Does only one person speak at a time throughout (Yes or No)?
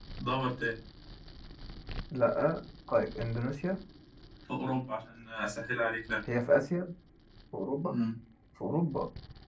Yes